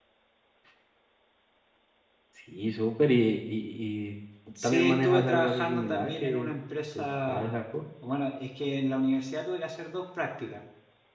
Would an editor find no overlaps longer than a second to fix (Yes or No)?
No